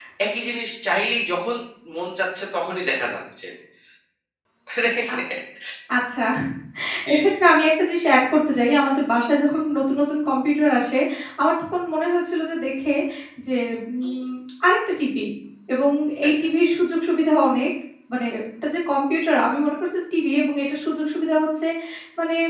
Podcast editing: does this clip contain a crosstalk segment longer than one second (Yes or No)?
No